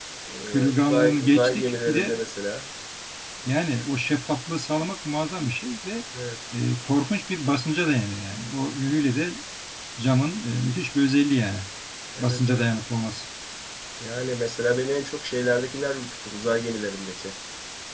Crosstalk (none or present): present